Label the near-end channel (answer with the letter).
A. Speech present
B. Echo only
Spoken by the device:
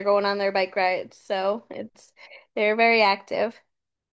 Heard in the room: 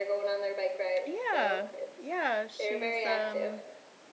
A